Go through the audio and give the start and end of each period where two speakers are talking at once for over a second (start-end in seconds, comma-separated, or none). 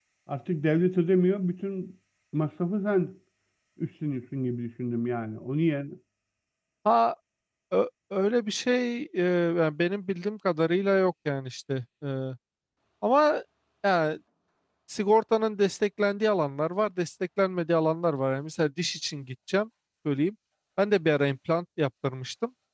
none